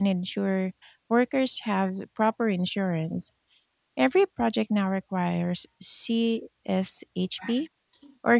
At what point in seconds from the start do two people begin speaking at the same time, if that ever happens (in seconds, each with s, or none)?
none